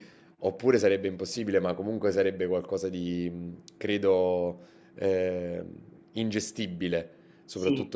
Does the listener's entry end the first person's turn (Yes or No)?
No